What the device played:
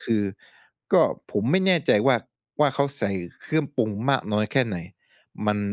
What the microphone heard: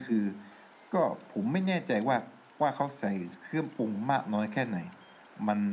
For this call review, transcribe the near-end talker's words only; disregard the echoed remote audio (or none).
none